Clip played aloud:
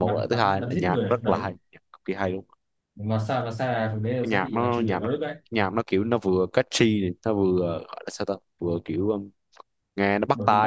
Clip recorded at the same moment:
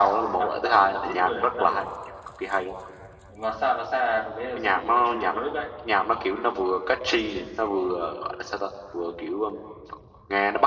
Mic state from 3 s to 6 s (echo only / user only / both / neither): echo only